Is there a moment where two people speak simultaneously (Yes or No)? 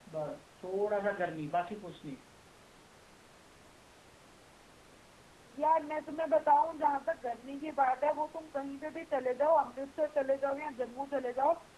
No